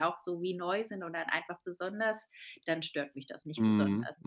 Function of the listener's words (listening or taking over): taking over